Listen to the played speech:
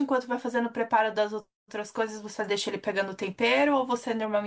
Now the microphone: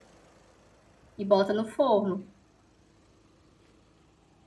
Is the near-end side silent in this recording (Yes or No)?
No